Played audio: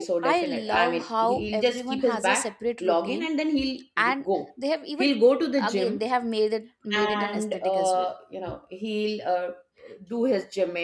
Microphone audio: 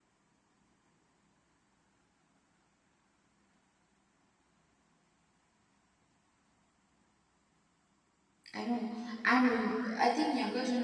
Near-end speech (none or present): present